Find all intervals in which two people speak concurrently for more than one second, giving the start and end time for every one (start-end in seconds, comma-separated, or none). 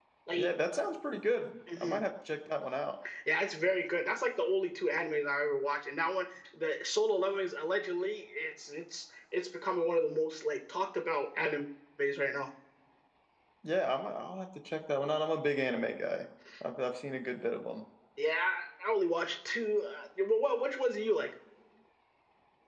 none